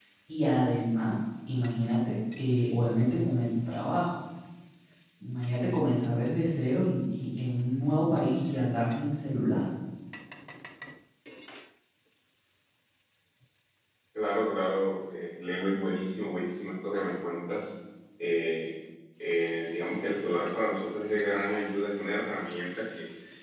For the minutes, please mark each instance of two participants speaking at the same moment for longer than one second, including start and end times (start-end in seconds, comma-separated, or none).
none